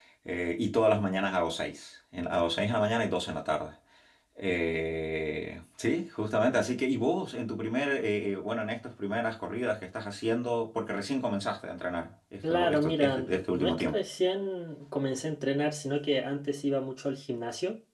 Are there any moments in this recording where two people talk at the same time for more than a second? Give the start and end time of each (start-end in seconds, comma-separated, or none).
12.5-14.0